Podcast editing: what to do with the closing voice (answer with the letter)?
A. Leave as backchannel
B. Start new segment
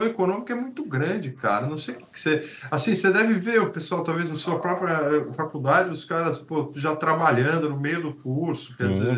B